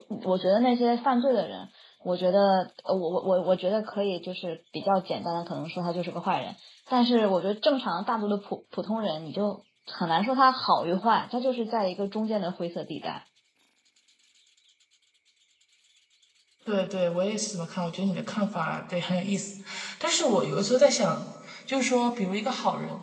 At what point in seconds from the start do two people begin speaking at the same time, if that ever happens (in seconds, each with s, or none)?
none